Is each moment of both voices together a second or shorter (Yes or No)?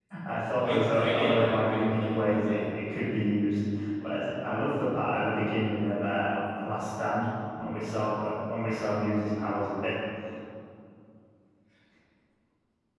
No